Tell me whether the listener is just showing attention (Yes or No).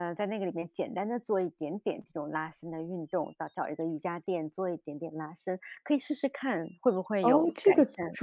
No